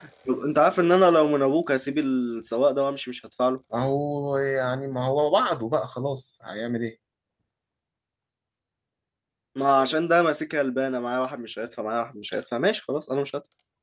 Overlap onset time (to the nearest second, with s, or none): none